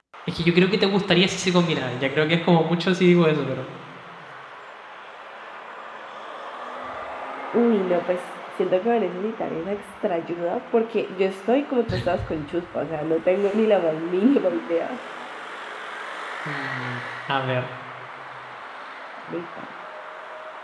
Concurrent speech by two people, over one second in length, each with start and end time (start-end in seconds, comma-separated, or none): none